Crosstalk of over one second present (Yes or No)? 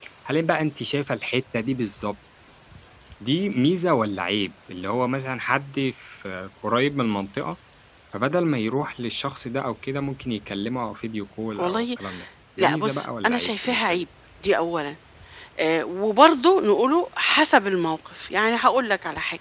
Yes